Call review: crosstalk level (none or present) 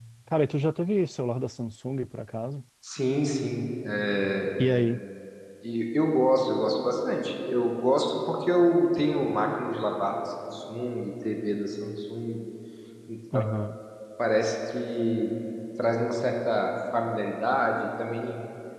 none